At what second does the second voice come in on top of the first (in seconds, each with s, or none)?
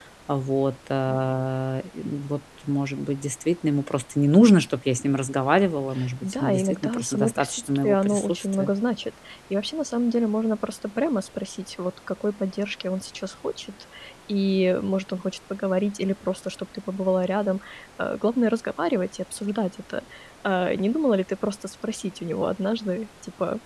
6.0 s